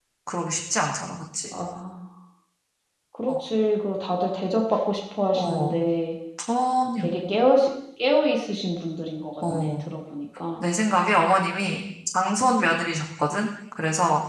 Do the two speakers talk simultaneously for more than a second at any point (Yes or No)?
No